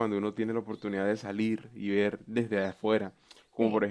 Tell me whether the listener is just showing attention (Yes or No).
Yes